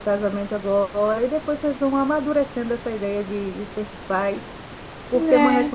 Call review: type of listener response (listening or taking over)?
listening